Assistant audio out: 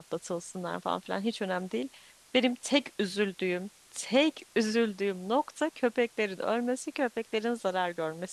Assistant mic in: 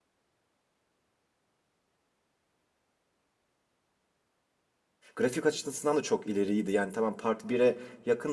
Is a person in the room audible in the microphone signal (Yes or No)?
Yes